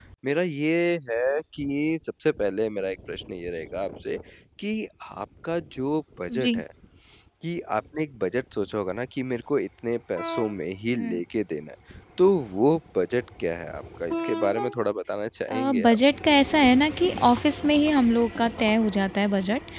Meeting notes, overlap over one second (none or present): none